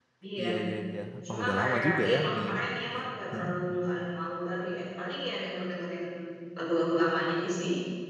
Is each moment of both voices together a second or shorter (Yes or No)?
No